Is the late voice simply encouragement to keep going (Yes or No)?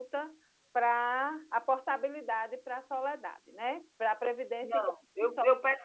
No